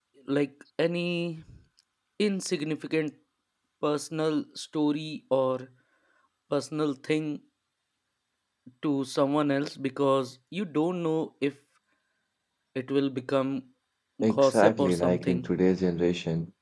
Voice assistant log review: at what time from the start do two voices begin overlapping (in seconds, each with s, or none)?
14.3 s